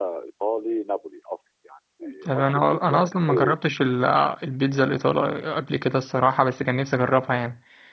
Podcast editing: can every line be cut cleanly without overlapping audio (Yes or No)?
No